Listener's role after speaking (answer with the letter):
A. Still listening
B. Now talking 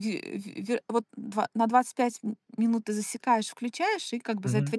A